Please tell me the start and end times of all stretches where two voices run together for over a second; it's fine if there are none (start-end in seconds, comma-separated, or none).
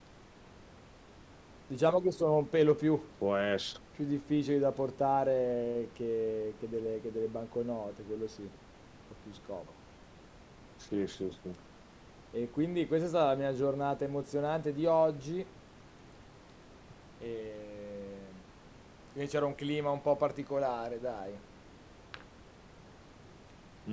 none